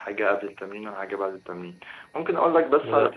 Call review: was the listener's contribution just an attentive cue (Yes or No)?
Yes